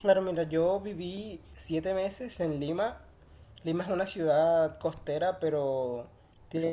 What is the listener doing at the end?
listening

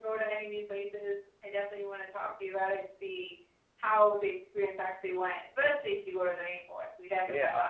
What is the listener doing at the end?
taking over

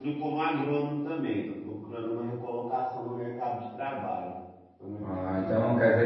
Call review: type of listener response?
taking over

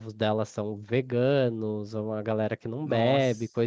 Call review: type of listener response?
listening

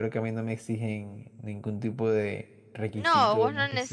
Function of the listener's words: taking over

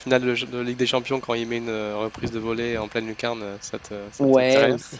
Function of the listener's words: taking over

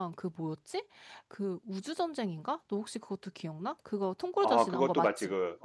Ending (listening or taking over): taking over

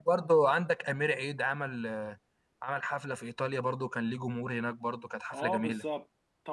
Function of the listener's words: taking over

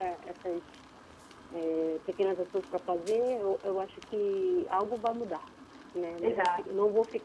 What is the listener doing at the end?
listening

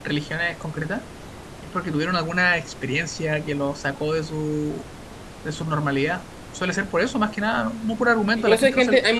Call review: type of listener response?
taking over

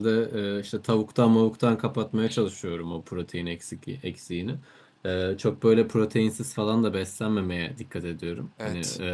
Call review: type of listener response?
listening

